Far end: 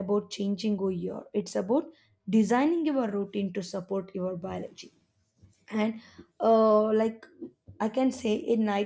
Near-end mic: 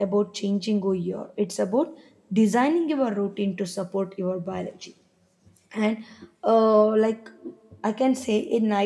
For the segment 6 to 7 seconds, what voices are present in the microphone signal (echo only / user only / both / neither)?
echo only